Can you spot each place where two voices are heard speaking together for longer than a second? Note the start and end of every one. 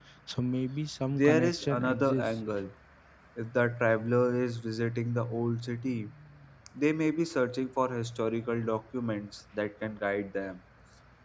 1.1-2.4

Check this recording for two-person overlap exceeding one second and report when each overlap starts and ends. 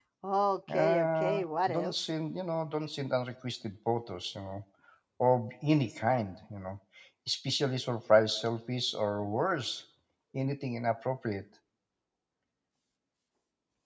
0.7-1.9

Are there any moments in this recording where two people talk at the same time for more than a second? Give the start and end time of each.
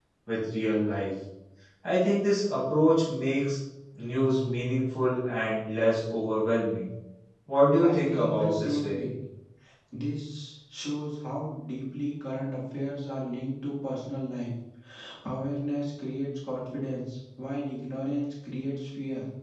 7.8-9.0

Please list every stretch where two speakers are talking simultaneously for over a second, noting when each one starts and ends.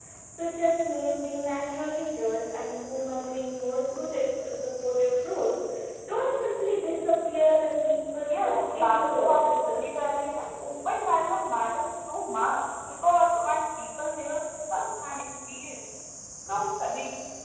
8.3-9.9

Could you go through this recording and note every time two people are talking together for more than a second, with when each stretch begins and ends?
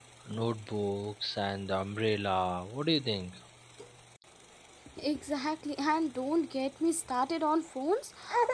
none

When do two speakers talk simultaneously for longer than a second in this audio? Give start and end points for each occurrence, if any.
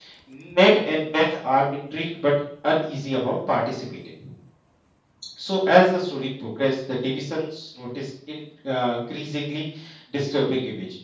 none

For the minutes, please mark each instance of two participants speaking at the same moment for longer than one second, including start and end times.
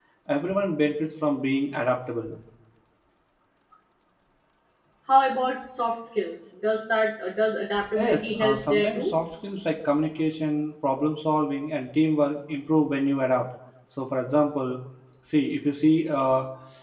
8.0-9.2

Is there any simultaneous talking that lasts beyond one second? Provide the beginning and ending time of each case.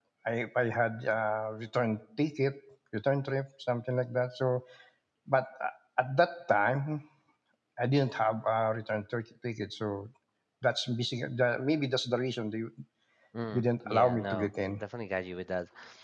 13.5-14.8

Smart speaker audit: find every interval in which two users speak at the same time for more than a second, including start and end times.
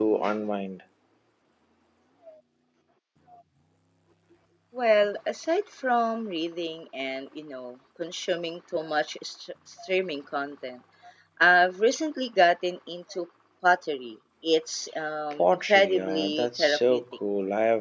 15.4-17.0

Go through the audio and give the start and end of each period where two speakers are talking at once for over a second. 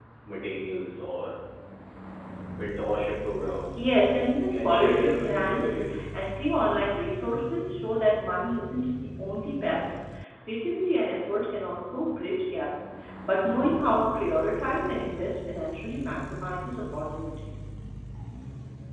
4.5-5.9

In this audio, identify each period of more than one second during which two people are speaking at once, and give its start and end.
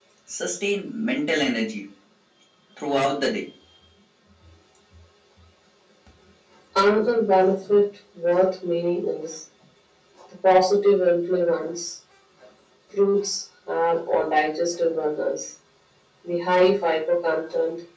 none

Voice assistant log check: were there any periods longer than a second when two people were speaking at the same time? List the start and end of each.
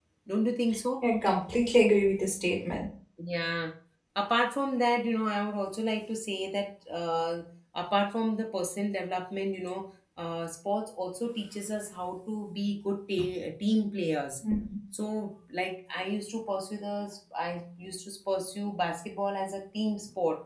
none

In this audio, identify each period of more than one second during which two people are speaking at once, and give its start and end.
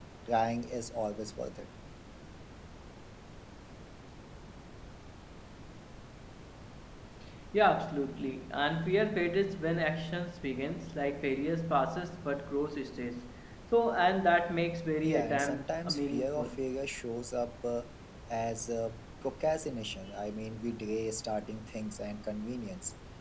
15.0-16.6

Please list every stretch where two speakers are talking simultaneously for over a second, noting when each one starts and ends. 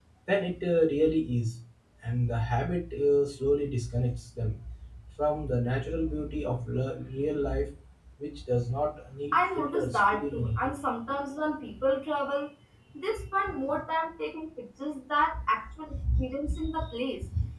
9.3-10.8

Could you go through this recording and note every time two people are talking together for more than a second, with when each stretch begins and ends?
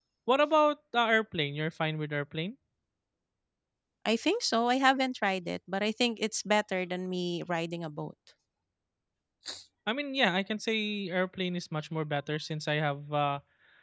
none

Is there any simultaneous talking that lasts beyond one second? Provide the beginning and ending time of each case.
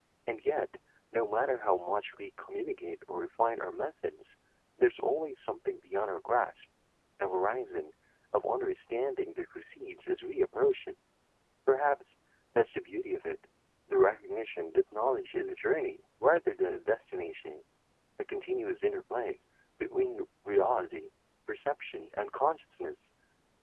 none

